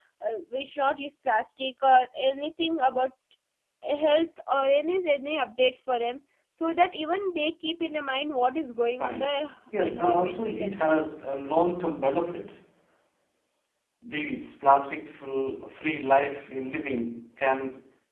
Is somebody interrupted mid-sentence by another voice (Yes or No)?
Yes